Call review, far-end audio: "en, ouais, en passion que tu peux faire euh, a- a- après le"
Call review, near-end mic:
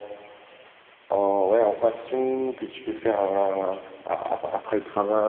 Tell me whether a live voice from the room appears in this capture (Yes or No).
No